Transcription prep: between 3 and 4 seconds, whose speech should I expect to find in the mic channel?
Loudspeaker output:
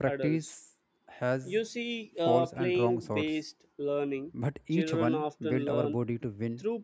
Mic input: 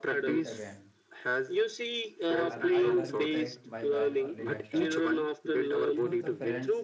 both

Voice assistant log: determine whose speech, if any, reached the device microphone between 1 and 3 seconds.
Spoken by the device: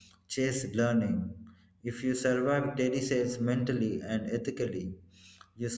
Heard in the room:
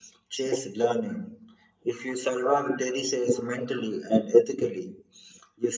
echo only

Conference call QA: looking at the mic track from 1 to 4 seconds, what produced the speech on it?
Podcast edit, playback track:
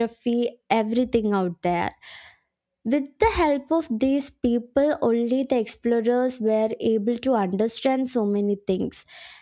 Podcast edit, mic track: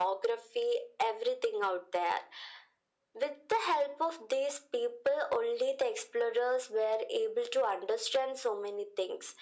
echo only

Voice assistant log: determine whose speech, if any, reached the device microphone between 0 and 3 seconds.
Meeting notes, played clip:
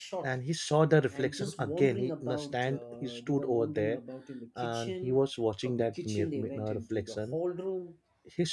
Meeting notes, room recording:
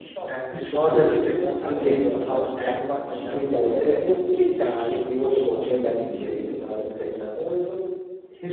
both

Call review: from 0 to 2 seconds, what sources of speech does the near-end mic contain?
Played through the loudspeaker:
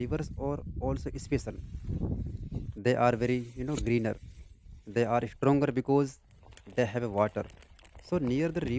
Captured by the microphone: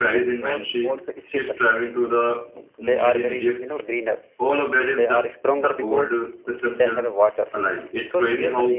both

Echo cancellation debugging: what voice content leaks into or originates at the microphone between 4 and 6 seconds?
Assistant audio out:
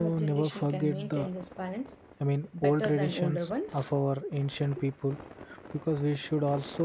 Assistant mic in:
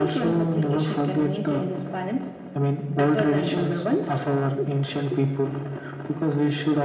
echo only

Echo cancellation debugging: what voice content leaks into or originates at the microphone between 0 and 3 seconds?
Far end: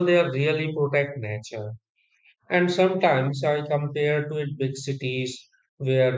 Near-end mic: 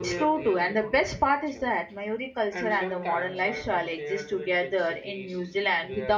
both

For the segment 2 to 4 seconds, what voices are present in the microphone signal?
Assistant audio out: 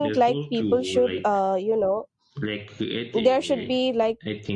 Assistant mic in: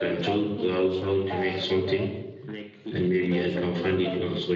both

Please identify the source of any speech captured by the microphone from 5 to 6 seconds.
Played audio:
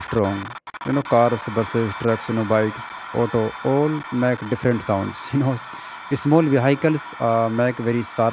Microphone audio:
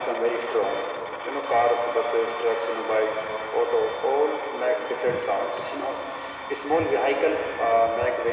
echo only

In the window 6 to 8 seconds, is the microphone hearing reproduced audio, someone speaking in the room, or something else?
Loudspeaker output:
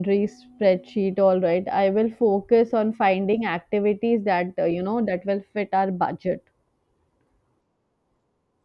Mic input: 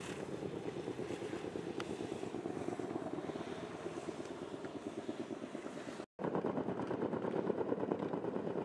neither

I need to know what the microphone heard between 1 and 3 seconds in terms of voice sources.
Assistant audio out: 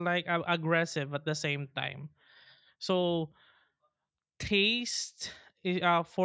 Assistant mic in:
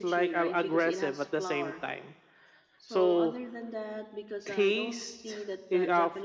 both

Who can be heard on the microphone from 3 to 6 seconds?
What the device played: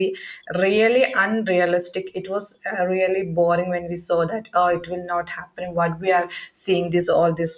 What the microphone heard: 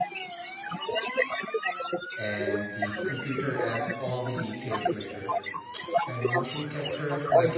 both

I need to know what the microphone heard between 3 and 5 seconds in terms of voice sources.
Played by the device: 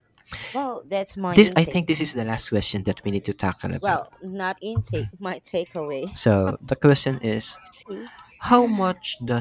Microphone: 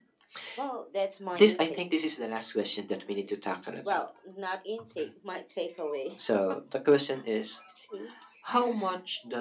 echo only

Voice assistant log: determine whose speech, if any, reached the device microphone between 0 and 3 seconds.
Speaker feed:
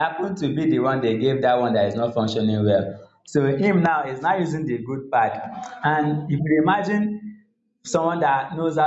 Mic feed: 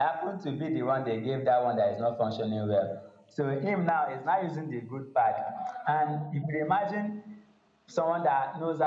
echo only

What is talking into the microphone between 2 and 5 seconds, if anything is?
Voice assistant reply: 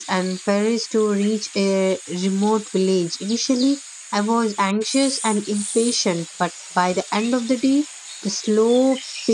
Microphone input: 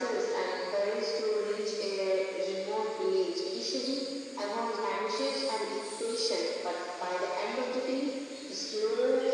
echo only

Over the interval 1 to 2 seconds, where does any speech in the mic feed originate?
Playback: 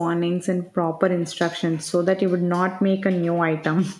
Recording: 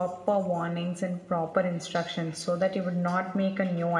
echo only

